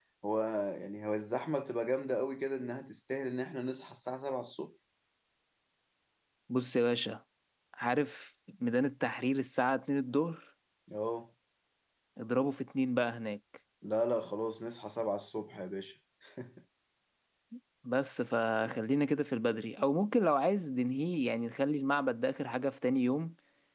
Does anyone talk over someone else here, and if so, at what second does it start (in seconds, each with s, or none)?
none